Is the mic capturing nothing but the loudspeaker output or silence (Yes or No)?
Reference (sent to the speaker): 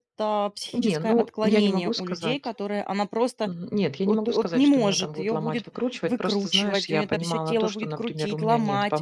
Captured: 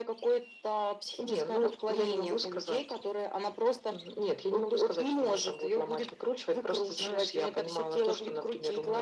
Yes